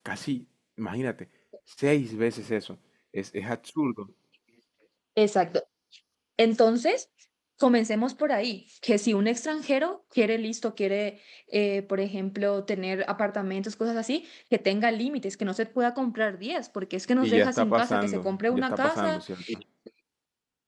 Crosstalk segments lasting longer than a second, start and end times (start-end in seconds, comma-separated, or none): 17.2-19.4